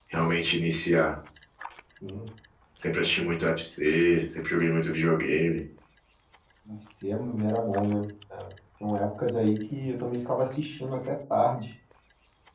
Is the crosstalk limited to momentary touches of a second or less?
Yes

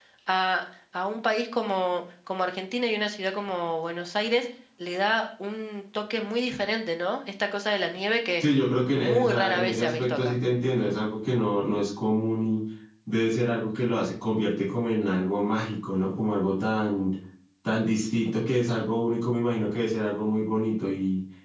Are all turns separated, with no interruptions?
No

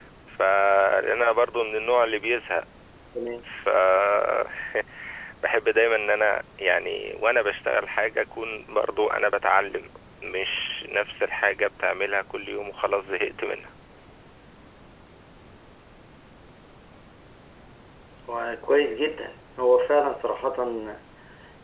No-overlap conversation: Yes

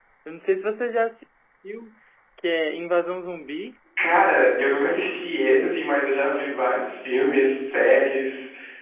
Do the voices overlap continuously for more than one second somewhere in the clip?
No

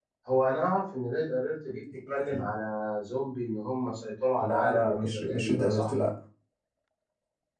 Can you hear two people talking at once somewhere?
Yes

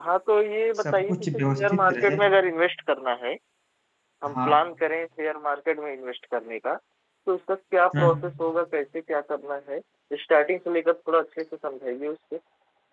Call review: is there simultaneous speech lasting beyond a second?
Yes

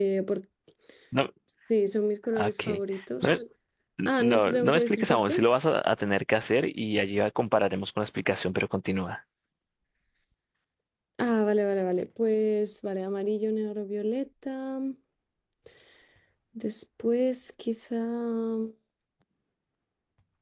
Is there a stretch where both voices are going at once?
Yes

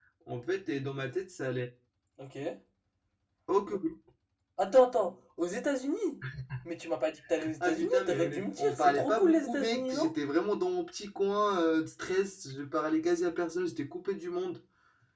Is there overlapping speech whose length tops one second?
Yes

